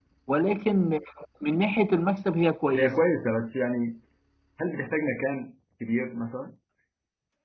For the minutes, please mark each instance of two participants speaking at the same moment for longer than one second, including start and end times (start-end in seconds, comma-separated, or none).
none